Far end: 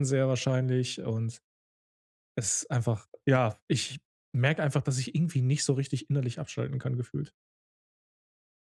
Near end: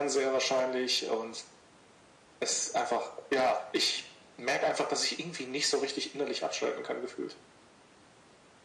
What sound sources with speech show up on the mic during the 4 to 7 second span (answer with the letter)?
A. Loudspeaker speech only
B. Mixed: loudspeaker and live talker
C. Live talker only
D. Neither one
A